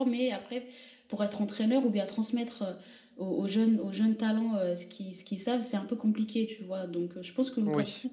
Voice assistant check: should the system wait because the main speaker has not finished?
Yes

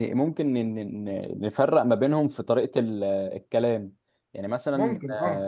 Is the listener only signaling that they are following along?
Yes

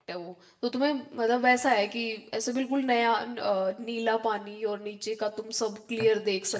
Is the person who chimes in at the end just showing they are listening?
No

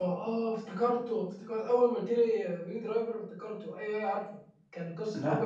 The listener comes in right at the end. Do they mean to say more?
No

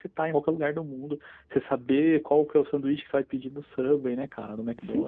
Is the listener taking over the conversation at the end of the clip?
Yes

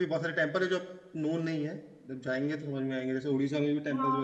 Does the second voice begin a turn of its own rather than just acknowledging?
Yes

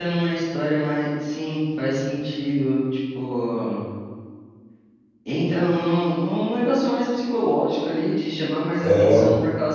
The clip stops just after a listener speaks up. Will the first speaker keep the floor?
Yes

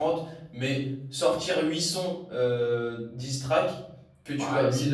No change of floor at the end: No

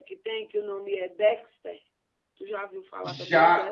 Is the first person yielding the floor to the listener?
Yes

